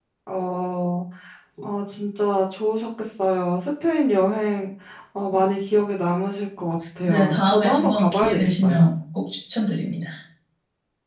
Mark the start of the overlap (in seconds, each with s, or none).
7.1 s